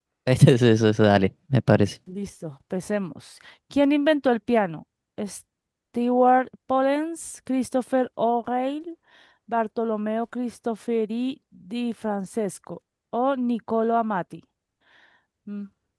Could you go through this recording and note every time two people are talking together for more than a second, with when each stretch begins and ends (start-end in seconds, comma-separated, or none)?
none